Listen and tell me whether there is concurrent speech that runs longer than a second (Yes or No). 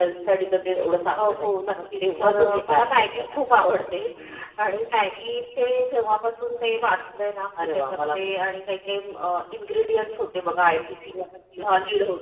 Yes